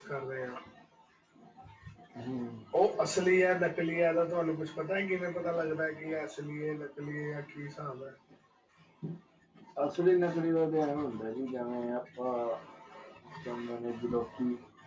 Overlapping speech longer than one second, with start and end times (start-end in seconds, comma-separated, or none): none